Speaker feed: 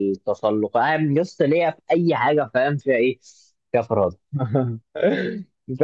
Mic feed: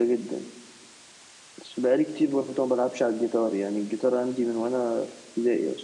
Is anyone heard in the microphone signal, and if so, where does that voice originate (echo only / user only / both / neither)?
user only